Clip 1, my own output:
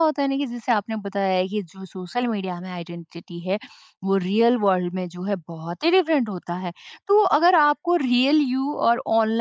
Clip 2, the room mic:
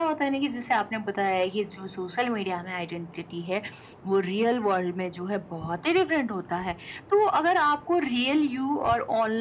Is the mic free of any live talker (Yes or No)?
Yes